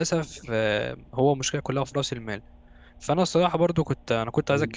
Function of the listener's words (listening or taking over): listening